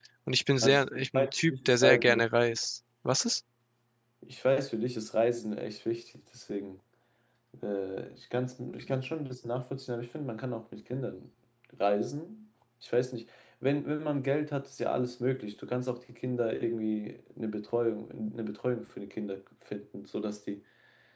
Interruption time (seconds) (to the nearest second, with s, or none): 1 s